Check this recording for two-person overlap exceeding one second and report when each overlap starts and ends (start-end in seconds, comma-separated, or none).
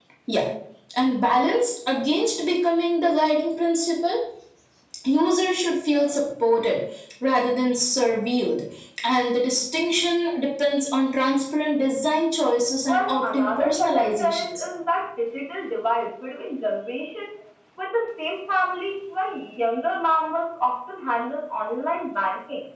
12.9-14.4